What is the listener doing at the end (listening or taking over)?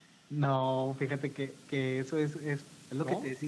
listening